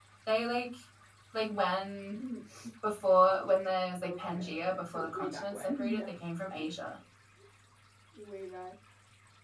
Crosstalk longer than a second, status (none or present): present